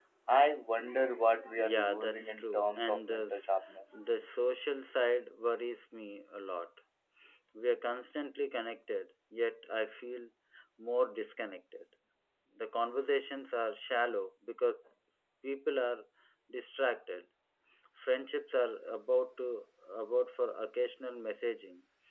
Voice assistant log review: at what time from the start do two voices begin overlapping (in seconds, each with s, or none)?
1.6 s